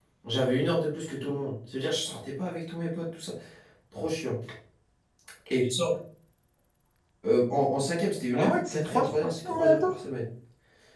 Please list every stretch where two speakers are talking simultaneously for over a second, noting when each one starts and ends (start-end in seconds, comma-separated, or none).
8.3-9.9